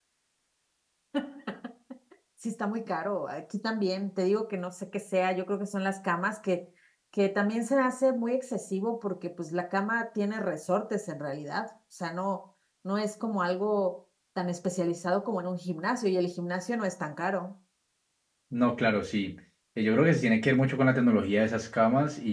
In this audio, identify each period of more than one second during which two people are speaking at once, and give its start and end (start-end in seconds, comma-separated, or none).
none